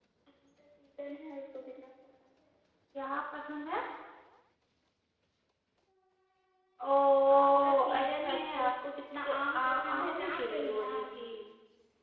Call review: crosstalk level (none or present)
present